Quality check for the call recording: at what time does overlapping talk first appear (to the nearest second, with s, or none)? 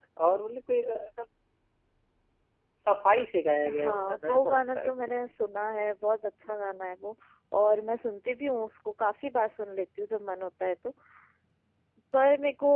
4 s